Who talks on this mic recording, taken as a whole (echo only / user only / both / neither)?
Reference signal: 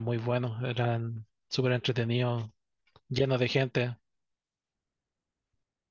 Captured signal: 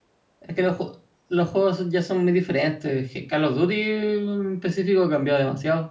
user only